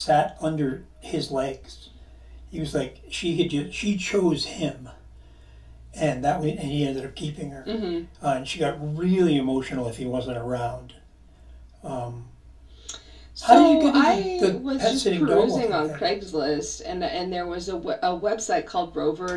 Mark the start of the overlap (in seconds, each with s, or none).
13.4 s